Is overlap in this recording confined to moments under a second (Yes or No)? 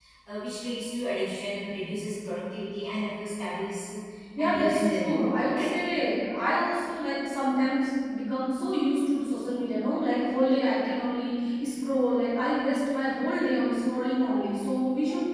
No